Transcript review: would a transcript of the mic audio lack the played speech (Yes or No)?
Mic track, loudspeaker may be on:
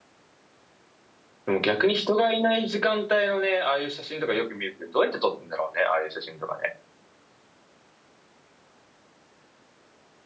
Yes